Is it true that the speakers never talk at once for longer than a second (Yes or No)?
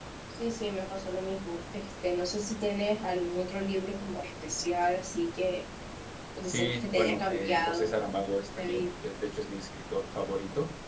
No